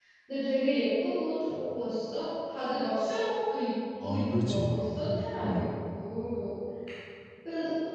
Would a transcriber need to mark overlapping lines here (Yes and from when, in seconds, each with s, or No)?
Yes, from 4.0 s